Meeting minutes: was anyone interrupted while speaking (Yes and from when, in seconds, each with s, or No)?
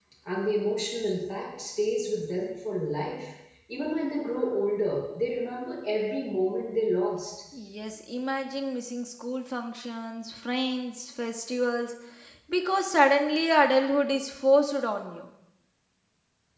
No